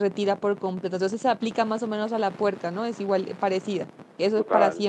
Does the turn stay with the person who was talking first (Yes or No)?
No